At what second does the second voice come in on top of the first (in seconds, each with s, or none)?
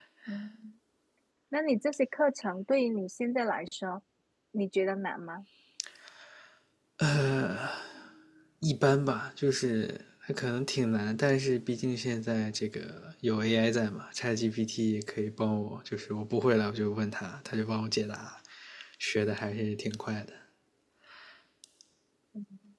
none